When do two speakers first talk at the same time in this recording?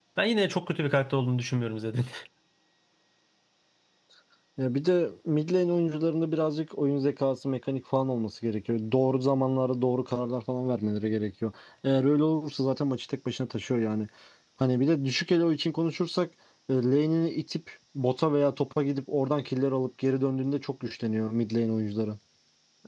none

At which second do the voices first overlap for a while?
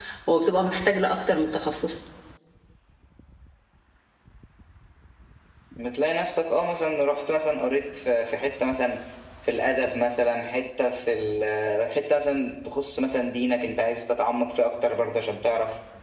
none

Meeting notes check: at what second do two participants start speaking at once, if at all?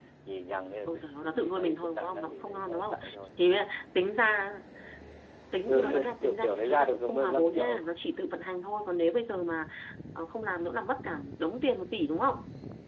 0.9 s

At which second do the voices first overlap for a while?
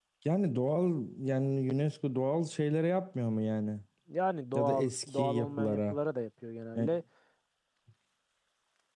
4.5 s

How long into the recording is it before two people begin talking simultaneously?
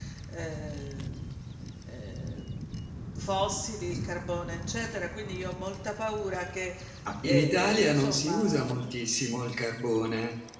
7.2 s

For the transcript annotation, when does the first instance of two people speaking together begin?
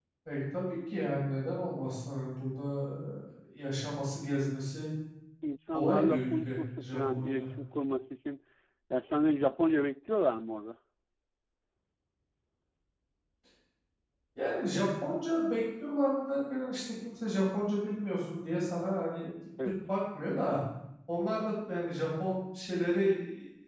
5.7 s

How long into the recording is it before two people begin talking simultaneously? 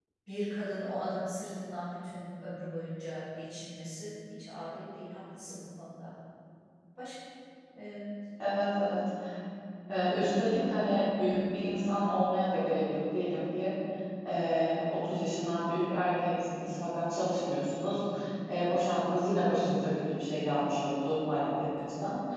none

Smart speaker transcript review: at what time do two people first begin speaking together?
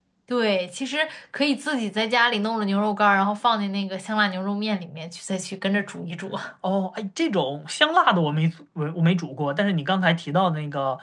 none

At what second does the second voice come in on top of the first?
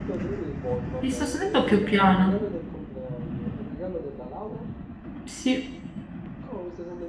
1.1 s

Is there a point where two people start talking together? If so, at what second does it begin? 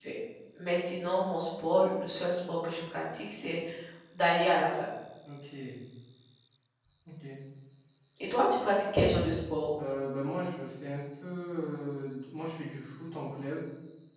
none

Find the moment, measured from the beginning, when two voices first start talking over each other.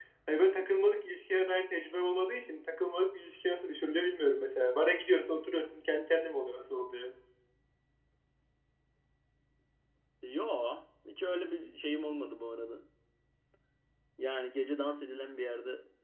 none

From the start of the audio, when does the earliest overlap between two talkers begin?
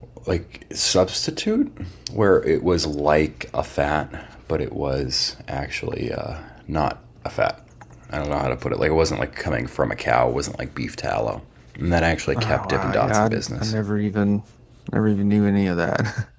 12.3 s

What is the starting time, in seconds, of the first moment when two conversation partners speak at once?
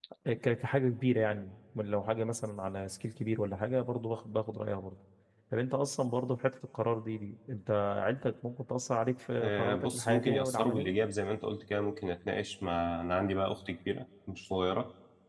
9.4 s

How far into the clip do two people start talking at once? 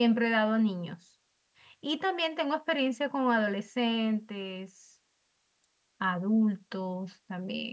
none

